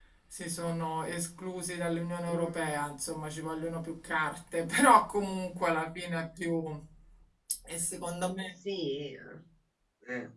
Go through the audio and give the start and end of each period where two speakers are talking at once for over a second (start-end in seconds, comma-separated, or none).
none